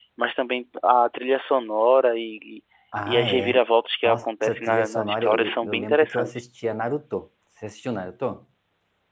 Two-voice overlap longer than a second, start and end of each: 4.0-6.4

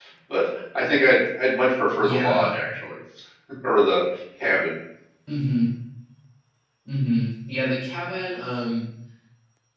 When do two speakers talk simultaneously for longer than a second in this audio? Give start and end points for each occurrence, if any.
none

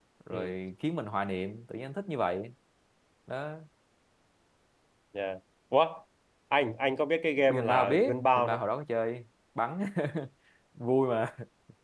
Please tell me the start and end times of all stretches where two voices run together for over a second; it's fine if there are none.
7.4-8.6

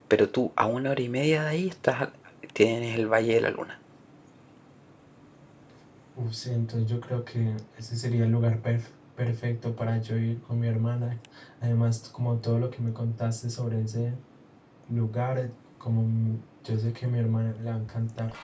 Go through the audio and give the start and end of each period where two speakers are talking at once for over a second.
none

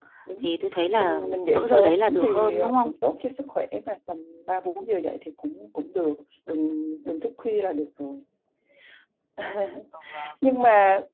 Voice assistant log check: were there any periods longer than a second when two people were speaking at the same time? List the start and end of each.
0.9-2.9

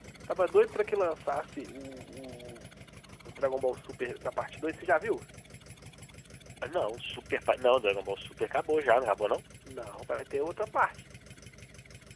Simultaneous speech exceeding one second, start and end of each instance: none

